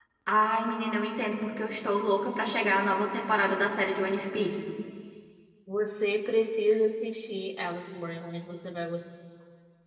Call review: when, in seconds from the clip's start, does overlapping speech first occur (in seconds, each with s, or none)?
none